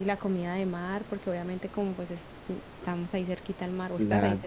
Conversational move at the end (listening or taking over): taking over